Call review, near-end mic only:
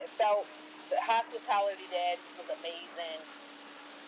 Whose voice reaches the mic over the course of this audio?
echo only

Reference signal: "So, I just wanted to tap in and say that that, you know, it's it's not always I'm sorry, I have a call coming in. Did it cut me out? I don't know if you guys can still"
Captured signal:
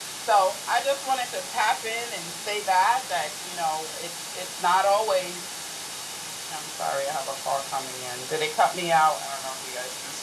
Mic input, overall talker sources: echo only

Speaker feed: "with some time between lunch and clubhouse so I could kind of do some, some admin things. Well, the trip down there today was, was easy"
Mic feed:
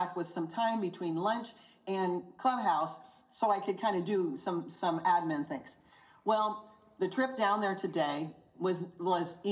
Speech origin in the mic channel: echo only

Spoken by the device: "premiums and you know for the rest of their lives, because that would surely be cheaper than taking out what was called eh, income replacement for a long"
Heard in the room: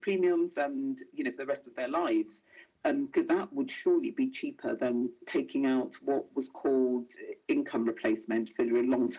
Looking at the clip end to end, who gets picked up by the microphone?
echo only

